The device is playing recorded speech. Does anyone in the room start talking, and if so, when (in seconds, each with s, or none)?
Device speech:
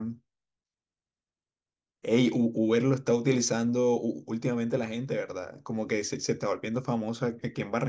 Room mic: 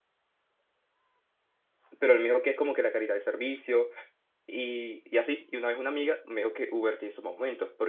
2.0 s